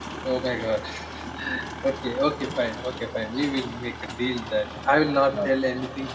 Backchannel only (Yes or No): Yes